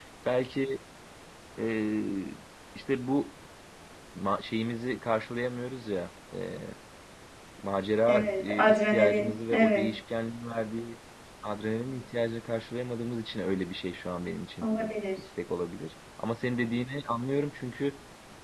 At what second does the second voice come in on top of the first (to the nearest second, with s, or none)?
8 s